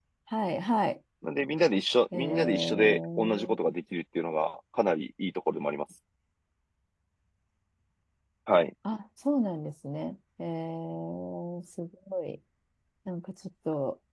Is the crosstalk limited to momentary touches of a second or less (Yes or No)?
No